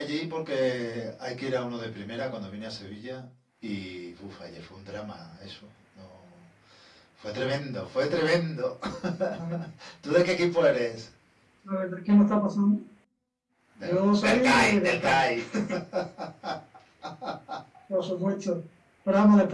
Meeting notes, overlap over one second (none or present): present